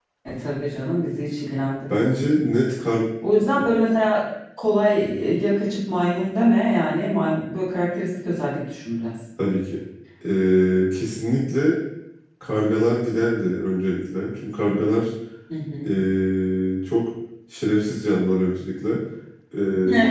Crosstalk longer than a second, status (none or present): none